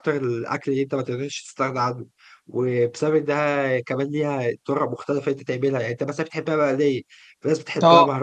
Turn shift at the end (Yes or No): No